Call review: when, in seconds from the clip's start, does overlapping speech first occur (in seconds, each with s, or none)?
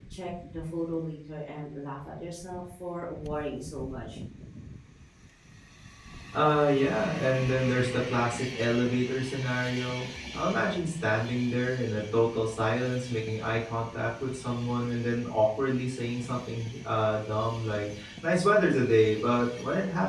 none